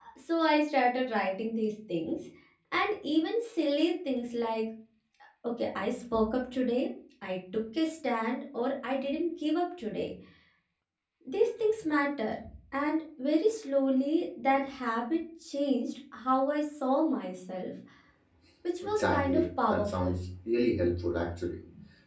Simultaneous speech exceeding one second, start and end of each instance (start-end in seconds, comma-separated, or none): 18.8-20.1